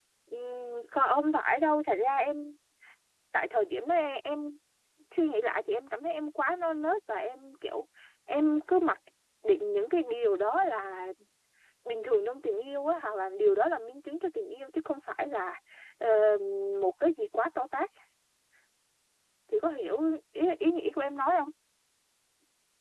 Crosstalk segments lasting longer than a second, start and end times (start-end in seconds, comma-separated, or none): none